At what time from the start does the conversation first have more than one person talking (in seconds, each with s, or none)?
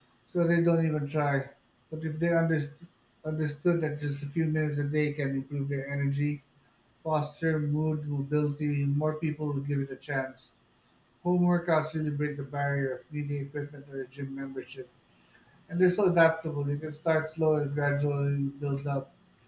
none